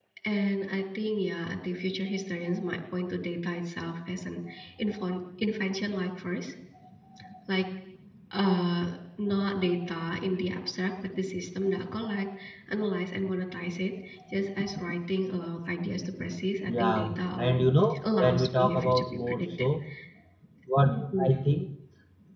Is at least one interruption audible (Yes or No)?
Yes